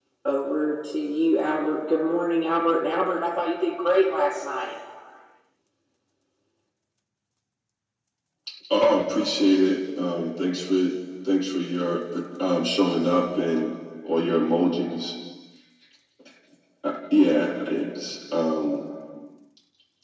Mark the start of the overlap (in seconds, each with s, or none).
none